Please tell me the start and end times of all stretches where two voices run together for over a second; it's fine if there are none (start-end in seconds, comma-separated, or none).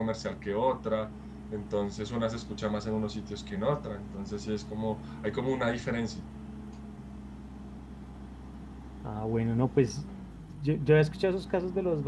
none